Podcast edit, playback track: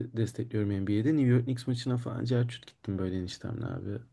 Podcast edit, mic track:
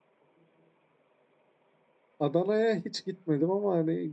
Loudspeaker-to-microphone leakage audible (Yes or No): No